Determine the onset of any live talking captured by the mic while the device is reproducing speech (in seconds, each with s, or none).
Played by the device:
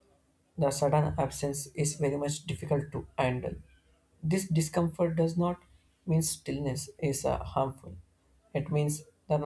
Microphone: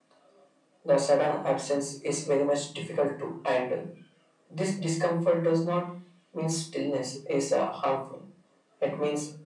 none